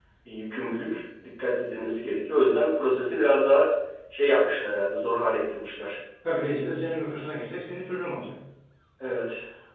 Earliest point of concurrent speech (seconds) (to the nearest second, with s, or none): none